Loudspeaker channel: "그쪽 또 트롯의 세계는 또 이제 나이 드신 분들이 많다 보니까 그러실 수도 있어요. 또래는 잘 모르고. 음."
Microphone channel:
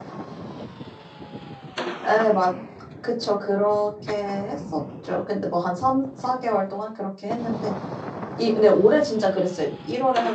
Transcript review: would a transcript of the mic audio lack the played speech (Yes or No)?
Yes